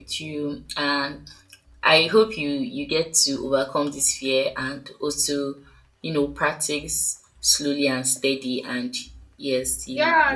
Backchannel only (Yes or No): No